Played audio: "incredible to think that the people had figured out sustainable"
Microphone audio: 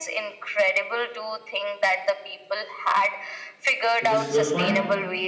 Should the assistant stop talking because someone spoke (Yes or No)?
Yes